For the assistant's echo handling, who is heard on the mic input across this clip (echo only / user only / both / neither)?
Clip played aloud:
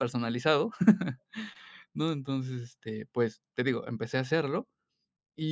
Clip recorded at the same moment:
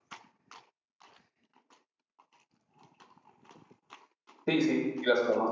user only